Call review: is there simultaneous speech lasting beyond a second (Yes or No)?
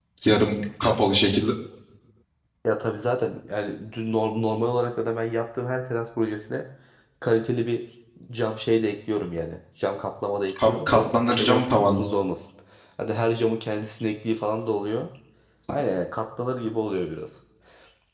Yes